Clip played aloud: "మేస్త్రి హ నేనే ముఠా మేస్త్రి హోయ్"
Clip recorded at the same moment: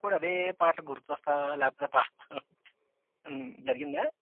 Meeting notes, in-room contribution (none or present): present